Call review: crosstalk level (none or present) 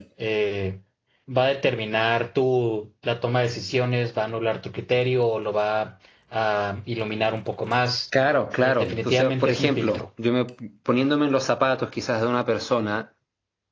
present